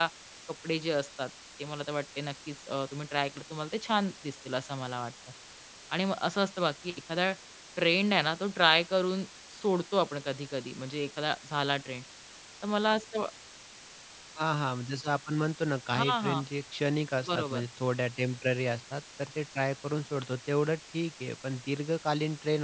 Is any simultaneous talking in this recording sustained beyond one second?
No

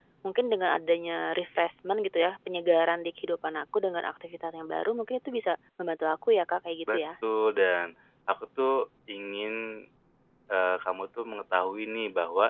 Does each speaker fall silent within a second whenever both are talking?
Yes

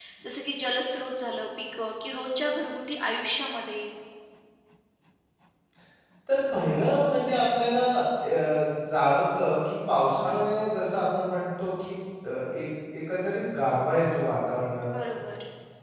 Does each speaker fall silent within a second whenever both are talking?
Yes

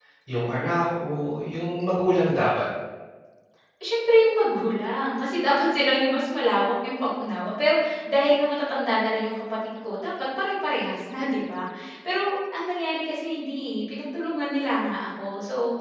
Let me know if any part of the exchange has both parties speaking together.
No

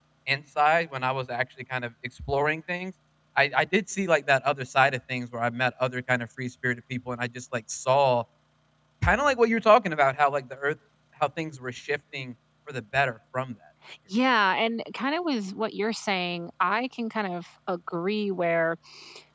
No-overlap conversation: Yes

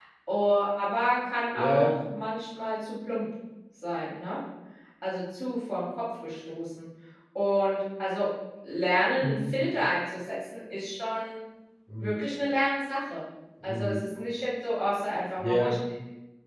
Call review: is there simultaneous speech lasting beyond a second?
No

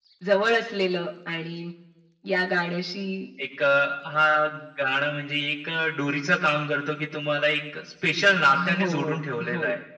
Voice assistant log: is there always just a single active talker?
No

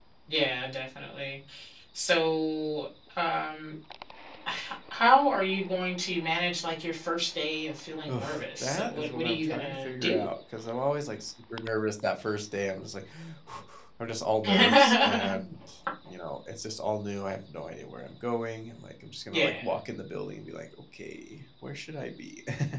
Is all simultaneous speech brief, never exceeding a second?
No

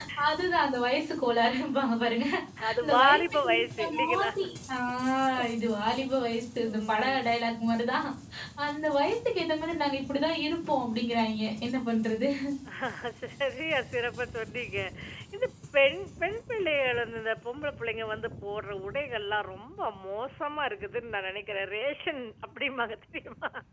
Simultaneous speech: Yes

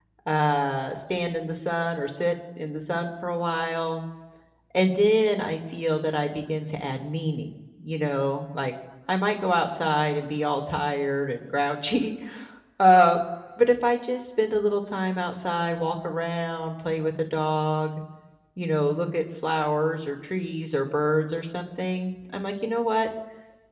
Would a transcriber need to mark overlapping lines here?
No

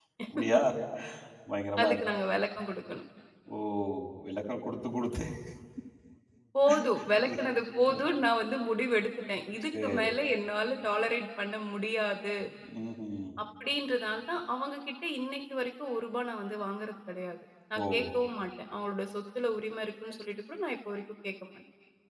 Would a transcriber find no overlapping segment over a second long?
Yes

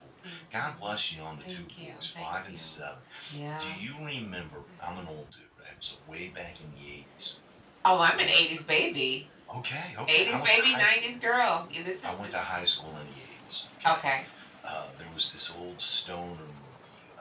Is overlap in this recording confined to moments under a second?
No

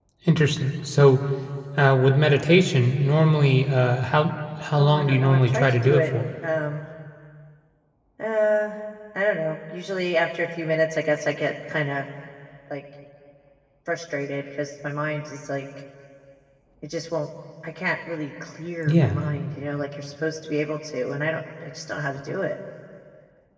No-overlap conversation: No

